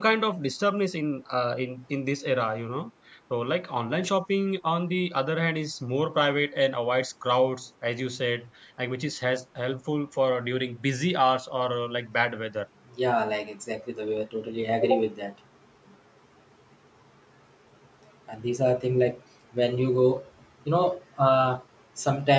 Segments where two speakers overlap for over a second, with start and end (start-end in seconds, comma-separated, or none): none